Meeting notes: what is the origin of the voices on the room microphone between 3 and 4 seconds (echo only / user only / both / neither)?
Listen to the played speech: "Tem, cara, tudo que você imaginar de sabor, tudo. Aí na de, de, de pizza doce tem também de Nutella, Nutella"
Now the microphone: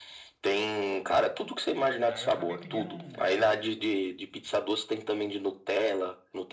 both